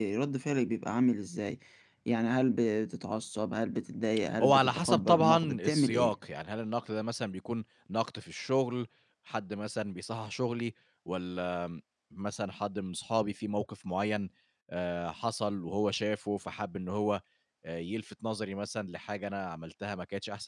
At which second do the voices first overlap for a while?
4 s

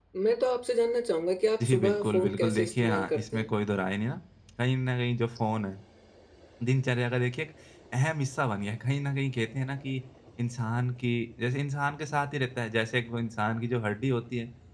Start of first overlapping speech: 2 s

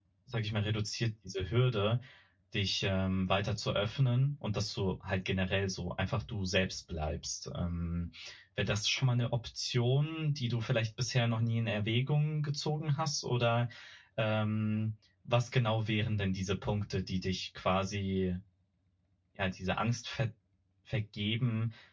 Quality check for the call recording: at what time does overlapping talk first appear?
none

